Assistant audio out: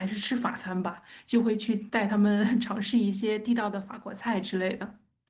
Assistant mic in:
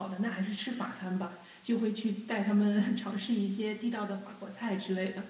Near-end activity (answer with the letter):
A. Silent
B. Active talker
A